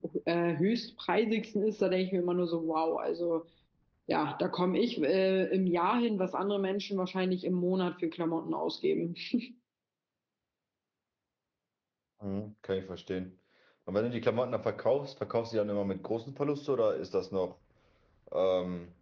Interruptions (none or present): none